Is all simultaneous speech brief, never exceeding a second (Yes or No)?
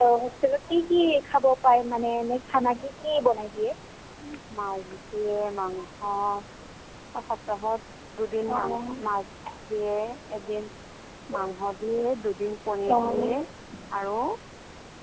Yes